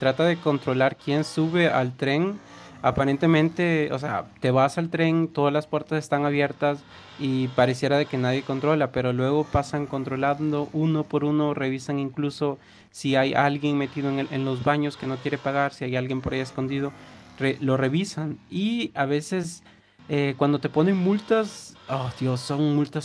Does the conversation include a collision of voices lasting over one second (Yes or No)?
No